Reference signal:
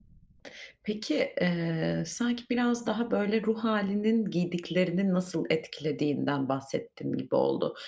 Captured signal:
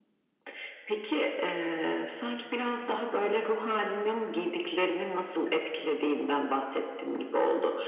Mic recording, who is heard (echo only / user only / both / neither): echo only